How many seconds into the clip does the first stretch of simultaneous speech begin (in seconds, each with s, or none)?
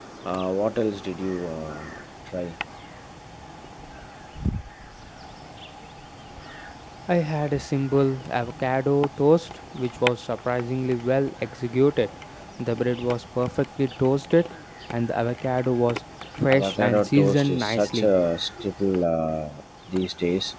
16.5 s